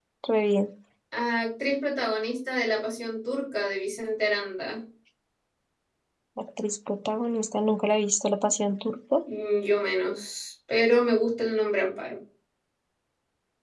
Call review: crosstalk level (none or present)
none